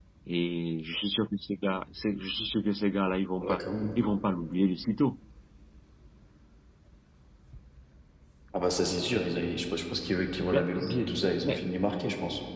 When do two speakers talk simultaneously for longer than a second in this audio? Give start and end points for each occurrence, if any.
none

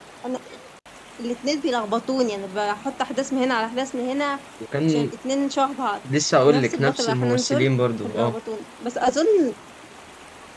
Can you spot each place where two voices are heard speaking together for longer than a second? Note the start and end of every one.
6.4-7.7

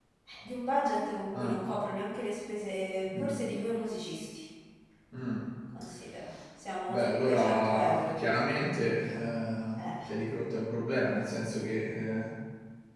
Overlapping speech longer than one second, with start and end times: 6.9-8.1

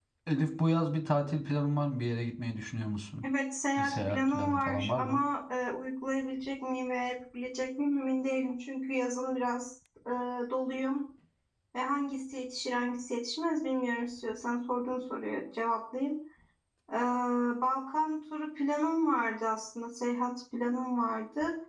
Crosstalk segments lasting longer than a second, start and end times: 3.8-5.2

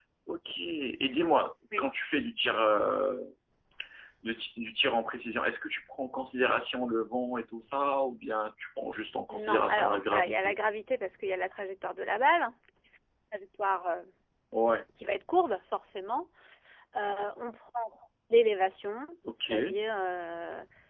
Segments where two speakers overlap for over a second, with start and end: 9.3-10.5

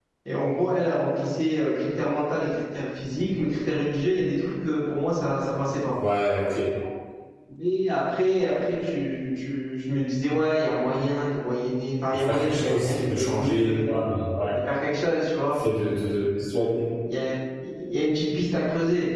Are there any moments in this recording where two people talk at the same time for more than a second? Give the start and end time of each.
12.1-13.9

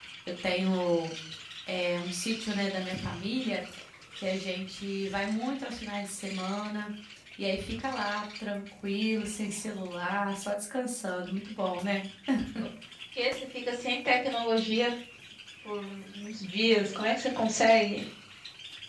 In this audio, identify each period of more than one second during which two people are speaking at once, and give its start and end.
none

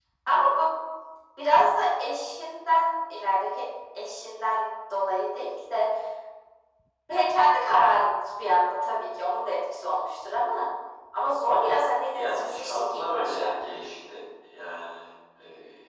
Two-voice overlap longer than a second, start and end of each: 12.1-13.5

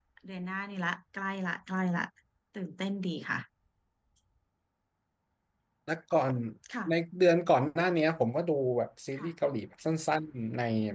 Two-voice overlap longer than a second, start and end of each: none

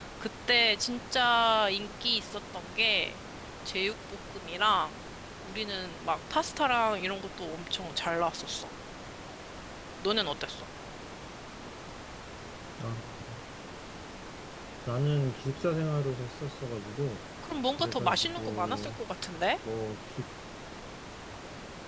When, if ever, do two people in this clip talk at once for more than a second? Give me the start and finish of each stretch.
17.7-19.0

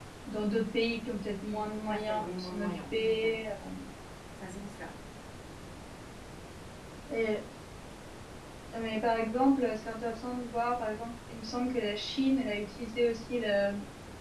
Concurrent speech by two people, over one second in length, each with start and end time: 1.5-3.4

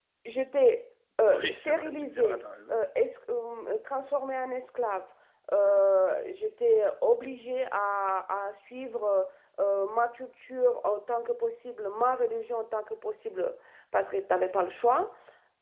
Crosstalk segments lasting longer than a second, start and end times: 1.3-2.8

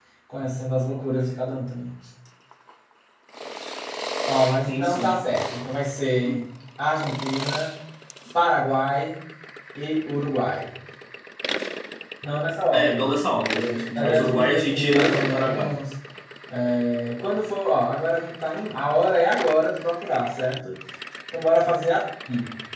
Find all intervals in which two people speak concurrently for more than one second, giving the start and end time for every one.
13.9-15.7

